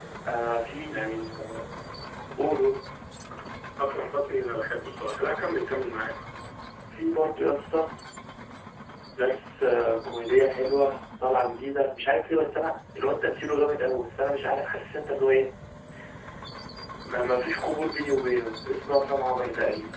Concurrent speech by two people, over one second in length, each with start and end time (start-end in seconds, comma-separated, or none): none